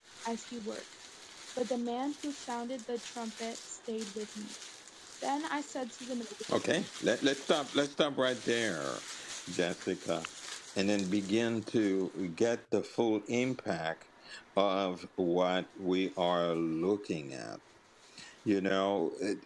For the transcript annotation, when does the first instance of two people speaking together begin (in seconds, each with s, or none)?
none